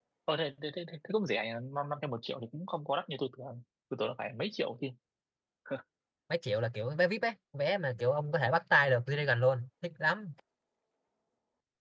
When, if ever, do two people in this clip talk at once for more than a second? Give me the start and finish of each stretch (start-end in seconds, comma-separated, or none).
none